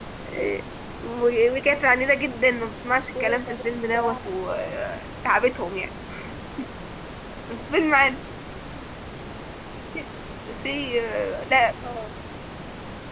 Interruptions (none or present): present